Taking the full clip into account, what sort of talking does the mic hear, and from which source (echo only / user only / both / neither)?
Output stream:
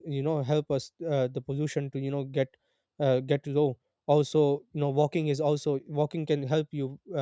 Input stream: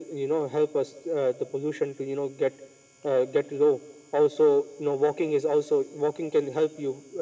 echo only